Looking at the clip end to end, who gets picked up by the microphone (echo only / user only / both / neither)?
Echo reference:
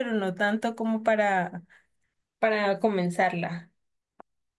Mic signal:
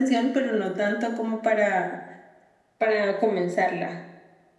echo only